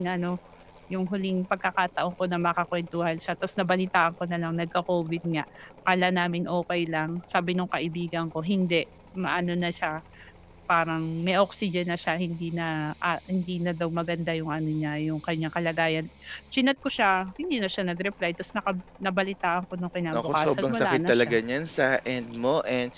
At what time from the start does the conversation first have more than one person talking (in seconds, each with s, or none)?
20.1 s